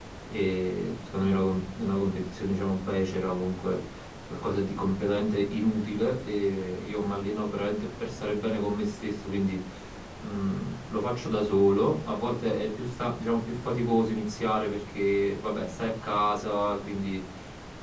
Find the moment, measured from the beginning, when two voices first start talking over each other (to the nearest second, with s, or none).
none